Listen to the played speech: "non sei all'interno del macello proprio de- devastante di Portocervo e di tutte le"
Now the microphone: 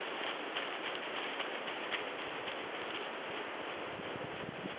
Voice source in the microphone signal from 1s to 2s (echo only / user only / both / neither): neither